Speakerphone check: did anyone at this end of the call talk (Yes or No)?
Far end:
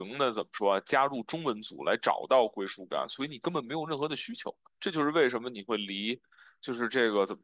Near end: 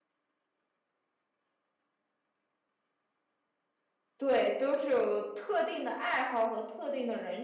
Yes